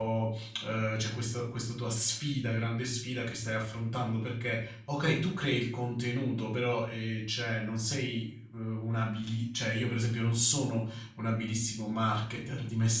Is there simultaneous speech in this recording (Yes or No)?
No